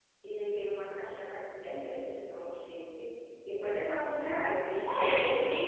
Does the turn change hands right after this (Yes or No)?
Yes